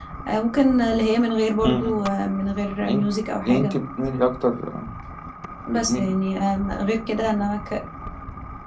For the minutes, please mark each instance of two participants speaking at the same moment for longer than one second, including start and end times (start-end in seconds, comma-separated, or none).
none